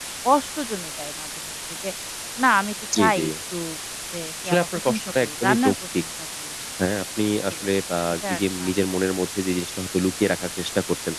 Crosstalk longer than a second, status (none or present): present